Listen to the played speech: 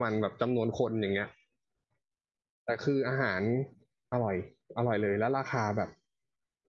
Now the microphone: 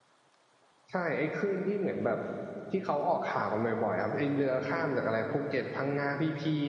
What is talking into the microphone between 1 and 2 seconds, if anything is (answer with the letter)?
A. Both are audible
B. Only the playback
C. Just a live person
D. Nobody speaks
C